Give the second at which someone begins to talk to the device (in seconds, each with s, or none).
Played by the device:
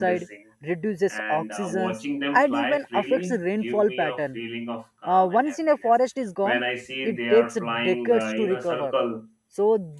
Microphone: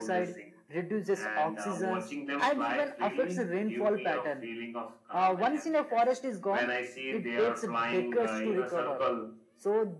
none